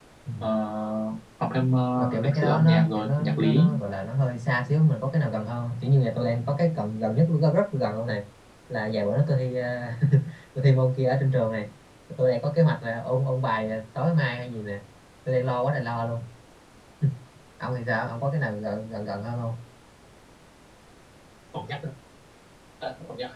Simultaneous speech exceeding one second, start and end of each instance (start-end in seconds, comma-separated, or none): 2.0-3.7